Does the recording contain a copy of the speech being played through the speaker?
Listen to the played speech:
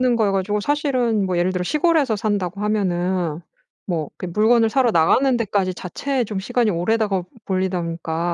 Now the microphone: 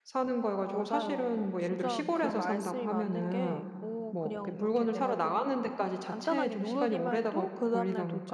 Yes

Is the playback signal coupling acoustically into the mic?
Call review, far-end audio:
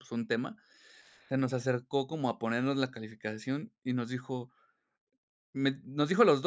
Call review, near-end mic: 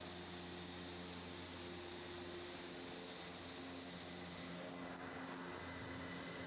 No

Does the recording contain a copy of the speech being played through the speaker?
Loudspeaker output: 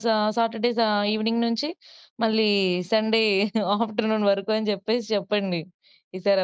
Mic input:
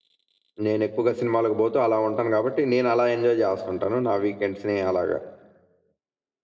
No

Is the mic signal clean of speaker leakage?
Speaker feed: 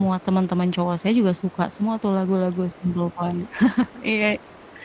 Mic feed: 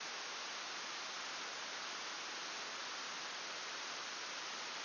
Yes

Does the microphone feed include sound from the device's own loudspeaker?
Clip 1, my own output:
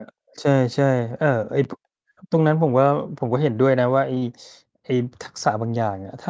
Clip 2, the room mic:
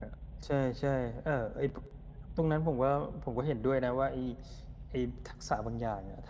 Yes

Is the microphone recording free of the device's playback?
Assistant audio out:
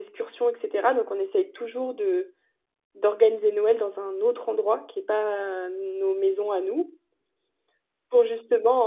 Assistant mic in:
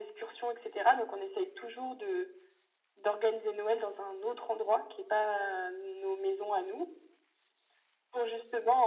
No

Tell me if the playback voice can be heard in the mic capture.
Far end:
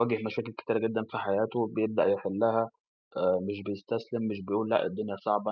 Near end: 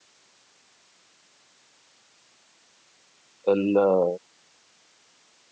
No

